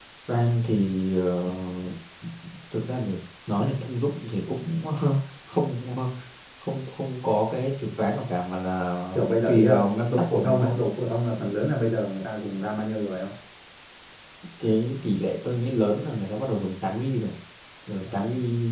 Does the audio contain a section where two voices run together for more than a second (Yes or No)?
Yes